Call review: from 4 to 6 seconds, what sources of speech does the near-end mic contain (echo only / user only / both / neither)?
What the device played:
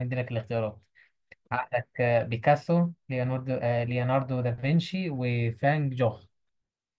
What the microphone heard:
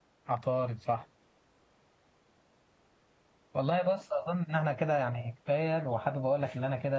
user only